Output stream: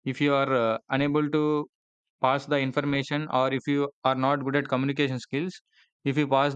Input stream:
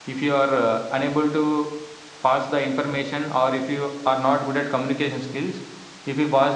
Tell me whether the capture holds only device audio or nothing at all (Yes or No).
Yes